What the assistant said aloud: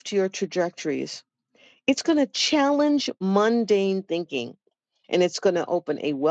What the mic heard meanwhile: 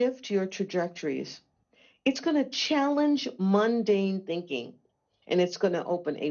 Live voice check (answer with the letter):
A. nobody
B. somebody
A